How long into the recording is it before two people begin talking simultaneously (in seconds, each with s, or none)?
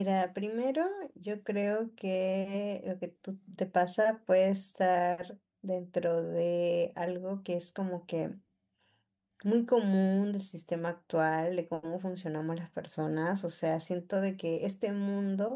none